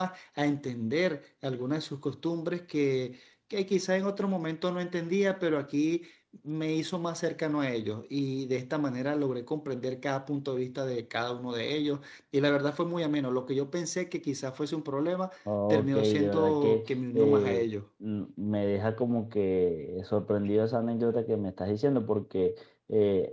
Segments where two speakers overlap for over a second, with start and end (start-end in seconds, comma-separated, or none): 15.7-17.7